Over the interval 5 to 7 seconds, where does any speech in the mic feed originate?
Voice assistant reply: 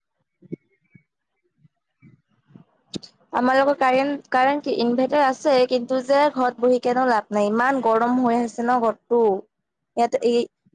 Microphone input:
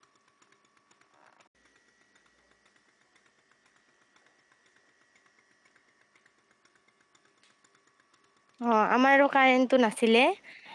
neither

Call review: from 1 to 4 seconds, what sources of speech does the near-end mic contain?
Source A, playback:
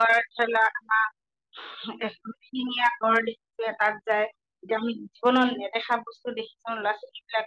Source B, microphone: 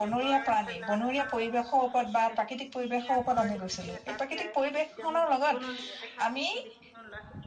both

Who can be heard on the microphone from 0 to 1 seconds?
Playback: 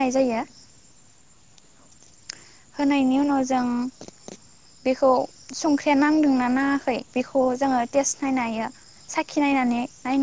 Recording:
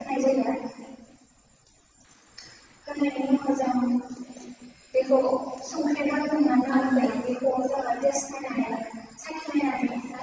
echo only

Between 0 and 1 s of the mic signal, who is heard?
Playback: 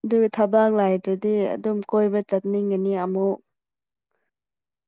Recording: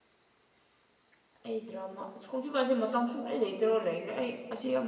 neither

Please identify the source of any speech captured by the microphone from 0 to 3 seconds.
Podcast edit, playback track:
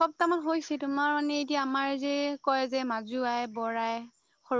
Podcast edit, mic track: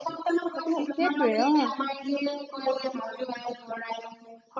both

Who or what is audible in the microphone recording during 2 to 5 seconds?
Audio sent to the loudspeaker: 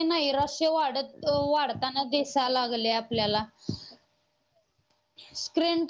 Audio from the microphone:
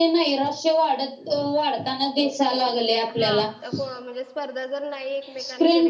both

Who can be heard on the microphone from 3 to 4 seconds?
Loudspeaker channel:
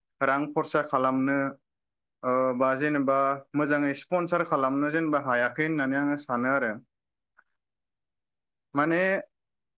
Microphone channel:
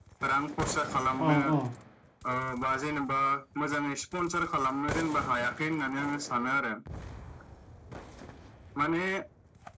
echo only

